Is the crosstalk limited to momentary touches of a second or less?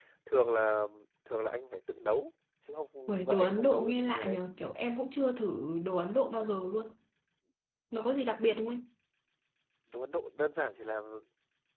No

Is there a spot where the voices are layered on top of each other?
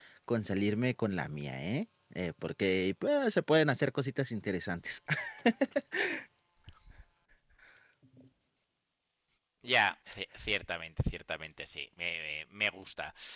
No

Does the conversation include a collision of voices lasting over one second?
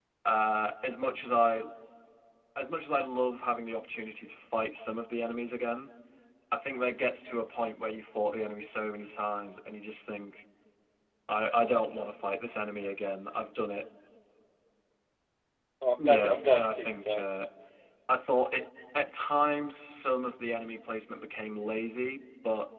Yes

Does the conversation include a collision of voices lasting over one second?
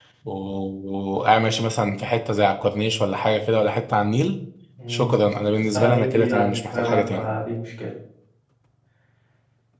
Yes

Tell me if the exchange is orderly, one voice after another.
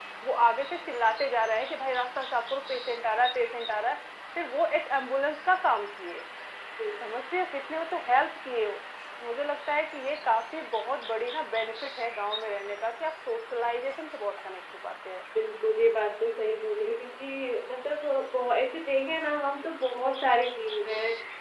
Yes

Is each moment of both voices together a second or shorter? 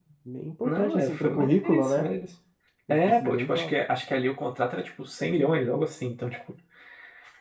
No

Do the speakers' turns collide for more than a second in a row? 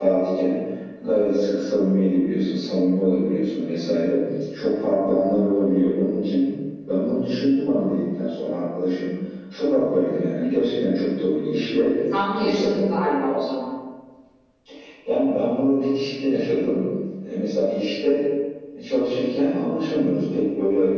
No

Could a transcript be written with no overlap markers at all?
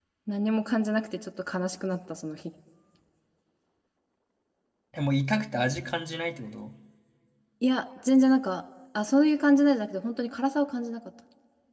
Yes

